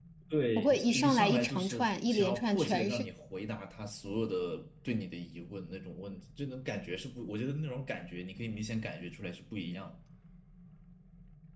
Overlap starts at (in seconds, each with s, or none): 0.6 s